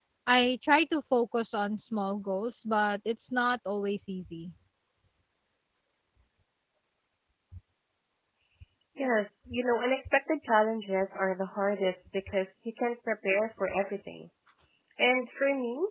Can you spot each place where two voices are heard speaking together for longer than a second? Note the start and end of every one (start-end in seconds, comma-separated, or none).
none